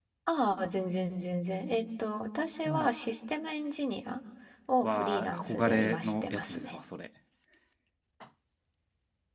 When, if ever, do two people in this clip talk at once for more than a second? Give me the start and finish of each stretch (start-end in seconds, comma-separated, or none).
4.8-6.8